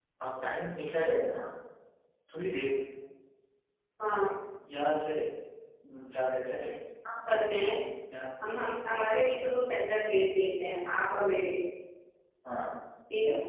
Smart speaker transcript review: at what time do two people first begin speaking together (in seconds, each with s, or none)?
none